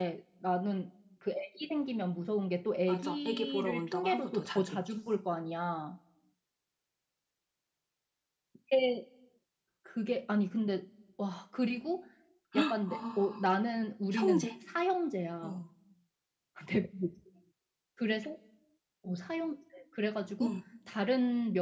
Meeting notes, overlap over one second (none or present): present